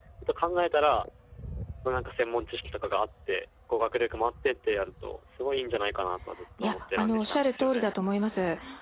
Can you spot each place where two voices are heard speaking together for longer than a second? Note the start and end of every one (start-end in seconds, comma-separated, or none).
6.6-7.9